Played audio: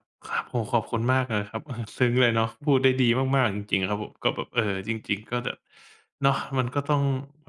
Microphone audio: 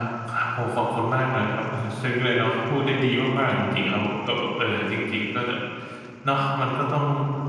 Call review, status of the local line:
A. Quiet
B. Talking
A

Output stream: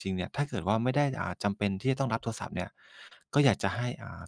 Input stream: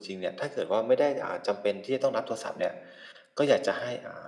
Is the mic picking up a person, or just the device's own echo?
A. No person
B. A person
A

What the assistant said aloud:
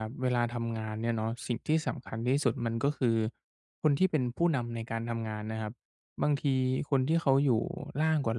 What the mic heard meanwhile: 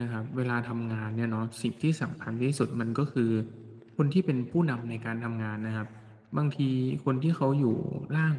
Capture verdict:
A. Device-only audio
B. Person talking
A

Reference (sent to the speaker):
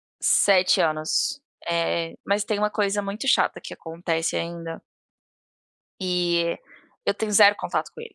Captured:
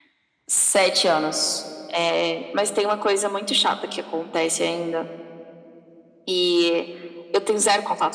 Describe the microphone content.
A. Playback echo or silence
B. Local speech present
A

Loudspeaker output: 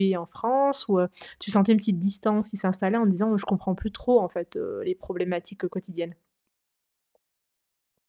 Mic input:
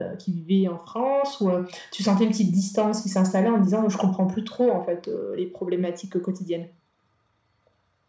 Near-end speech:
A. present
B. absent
B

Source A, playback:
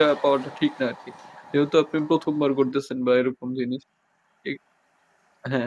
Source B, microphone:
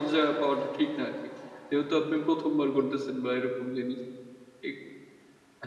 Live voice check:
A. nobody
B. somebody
A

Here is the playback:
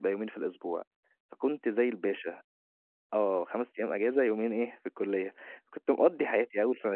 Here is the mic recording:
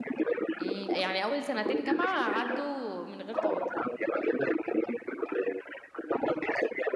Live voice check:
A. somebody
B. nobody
A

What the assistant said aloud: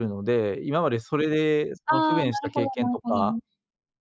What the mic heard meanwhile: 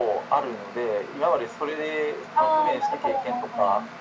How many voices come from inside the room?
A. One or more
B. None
B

